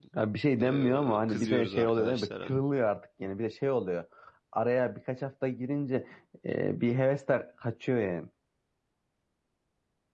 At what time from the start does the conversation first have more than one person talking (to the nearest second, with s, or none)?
1 s